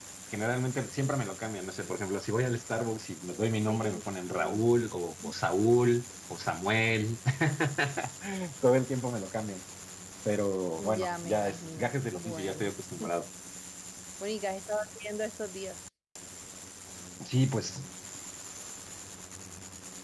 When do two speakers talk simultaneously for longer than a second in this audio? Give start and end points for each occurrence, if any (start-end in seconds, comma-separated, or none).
11.0-12.7